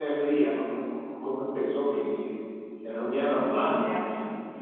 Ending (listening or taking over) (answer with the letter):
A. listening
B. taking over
B